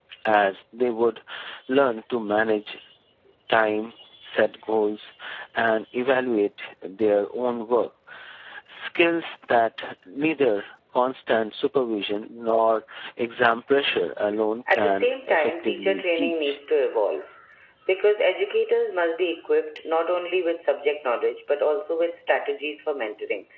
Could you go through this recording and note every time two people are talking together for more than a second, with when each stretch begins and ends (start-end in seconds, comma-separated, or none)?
14.7-16.6